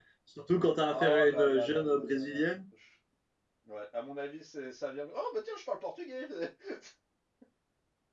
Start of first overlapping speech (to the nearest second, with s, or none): 1 s